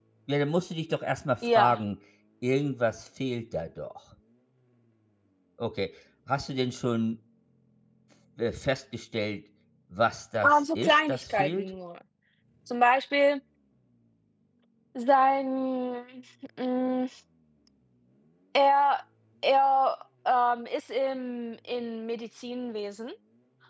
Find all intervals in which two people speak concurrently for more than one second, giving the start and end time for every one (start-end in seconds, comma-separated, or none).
10.4-11.7